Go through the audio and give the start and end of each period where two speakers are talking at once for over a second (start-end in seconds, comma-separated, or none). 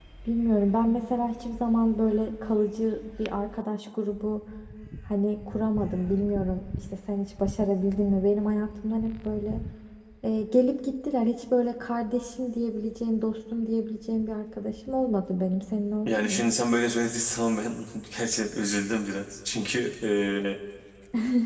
none